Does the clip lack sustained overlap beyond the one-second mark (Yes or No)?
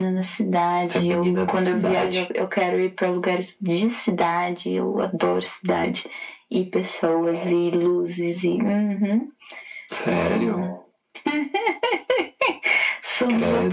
No